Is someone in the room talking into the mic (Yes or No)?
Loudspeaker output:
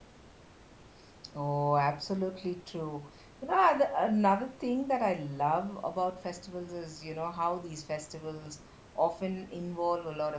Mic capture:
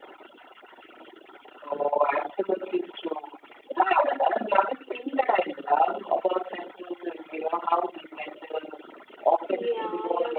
Yes